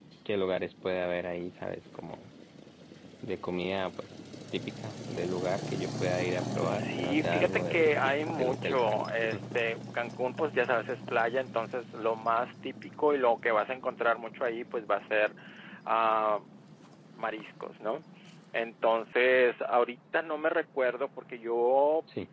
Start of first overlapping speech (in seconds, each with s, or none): 6.6 s